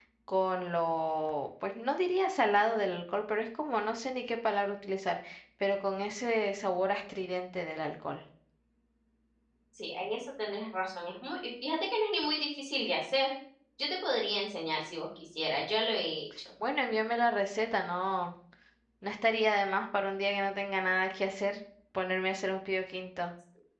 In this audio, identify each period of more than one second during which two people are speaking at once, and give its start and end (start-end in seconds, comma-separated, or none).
none